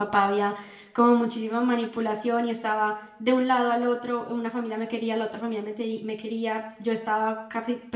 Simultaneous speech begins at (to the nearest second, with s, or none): none